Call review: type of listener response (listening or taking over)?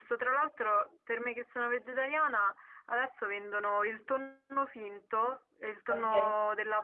listening